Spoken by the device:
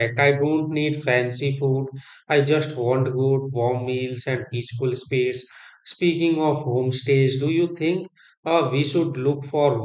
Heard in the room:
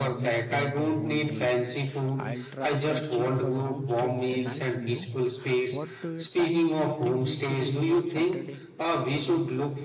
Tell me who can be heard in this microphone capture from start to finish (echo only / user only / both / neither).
both